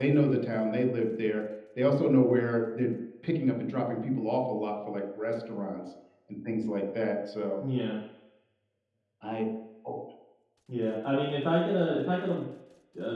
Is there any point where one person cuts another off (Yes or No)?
No